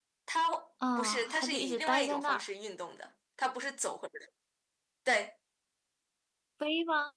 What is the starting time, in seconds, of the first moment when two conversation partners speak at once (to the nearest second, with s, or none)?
1 s